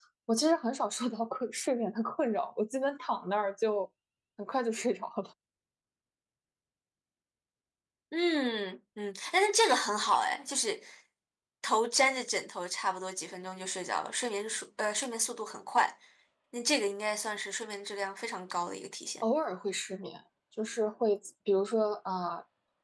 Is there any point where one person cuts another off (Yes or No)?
No